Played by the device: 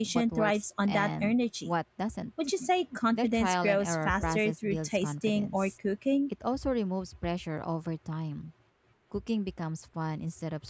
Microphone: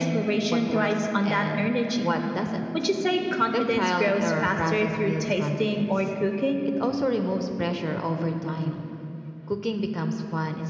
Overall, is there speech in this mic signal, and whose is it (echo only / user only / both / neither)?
echo only